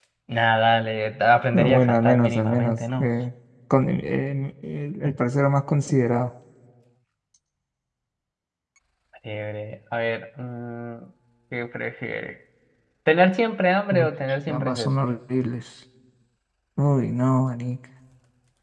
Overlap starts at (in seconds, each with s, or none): 1.5 s